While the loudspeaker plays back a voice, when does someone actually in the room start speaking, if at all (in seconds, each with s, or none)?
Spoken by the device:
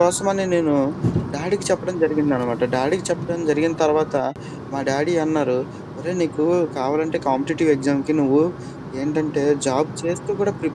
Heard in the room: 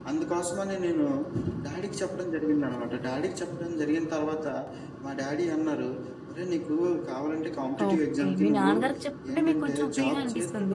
7.8 s